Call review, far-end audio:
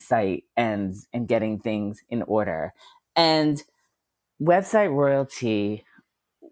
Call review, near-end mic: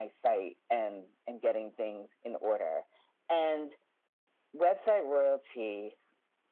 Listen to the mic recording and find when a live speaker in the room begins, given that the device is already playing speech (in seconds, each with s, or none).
none